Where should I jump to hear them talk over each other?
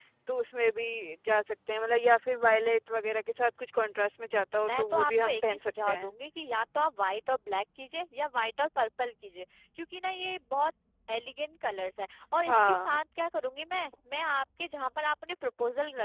5 s

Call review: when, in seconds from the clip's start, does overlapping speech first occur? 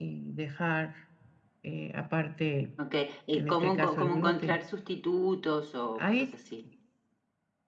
3 s

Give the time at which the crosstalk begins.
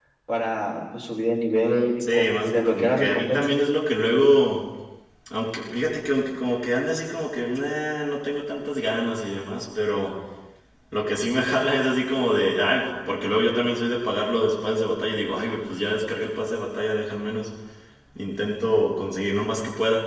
2 s

